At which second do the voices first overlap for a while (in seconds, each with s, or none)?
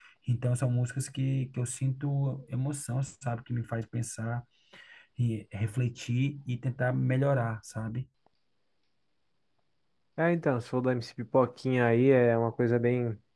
none